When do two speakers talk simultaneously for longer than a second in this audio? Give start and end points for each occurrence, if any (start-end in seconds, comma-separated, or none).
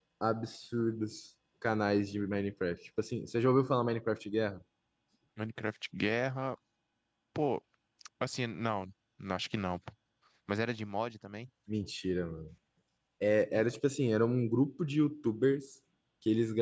none